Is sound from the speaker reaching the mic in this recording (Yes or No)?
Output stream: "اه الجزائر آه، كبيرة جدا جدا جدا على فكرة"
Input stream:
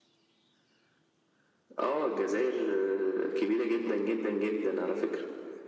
Yes